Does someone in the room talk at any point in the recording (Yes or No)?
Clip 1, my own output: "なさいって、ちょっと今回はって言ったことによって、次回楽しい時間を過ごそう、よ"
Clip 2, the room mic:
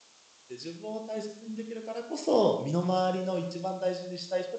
Yes